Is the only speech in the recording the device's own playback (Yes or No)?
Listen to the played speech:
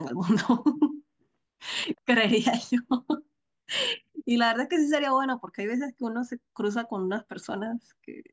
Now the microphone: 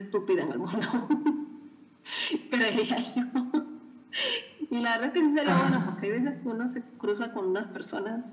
No